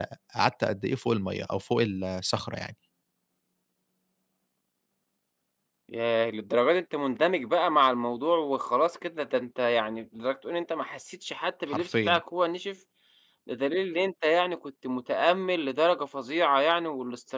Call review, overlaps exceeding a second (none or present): none